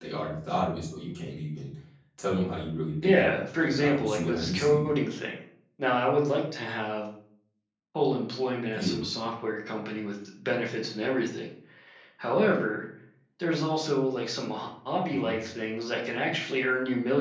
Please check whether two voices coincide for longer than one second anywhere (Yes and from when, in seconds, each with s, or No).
Yes, from 3.0 s